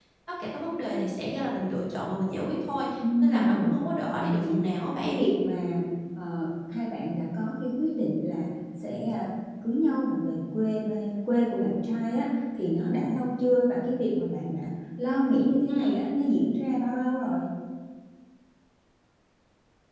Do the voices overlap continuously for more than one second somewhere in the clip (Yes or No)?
Yes